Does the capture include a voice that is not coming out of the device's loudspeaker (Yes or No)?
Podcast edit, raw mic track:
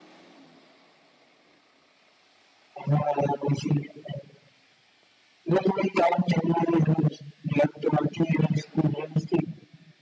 No